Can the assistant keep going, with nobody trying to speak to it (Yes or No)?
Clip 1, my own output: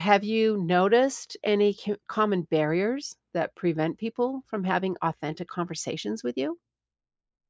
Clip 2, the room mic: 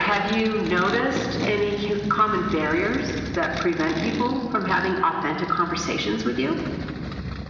Yes